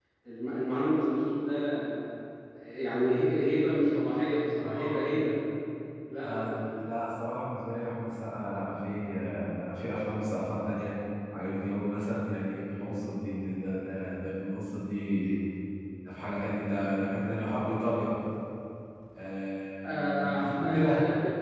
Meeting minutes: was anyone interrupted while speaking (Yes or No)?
Yes